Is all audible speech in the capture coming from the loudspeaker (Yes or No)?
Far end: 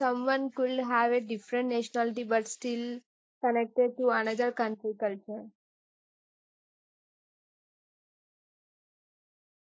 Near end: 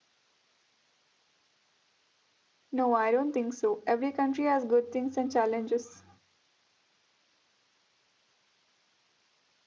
No